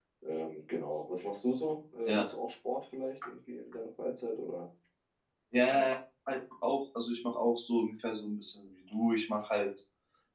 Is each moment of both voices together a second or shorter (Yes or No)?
Yes